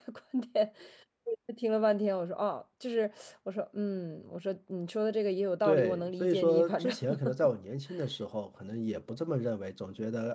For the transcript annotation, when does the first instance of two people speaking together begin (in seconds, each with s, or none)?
5.6 s